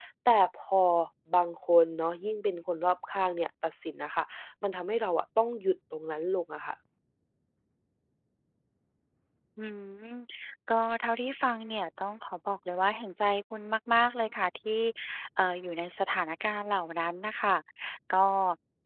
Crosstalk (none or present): none